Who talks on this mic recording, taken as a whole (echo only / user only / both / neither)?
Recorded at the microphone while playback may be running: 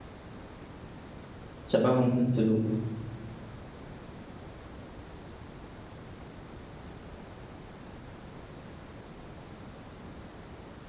user only